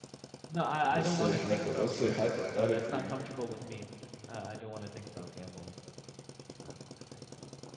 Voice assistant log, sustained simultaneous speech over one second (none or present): present